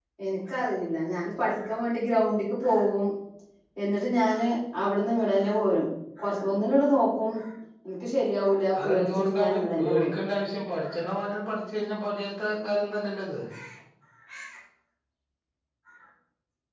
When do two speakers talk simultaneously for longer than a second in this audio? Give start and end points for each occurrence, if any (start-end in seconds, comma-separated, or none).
8.8-10.1